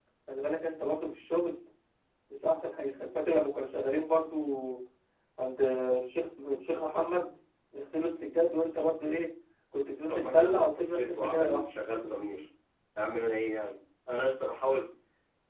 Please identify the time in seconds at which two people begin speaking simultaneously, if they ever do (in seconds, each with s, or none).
10.1 s